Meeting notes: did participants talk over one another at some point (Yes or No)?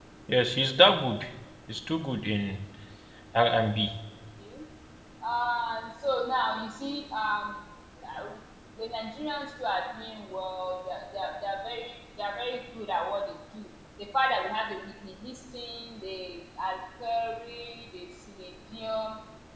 No